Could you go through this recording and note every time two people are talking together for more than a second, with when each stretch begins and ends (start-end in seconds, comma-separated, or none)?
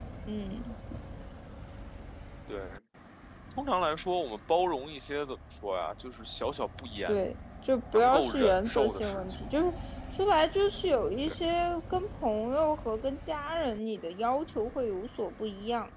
7.9-9.2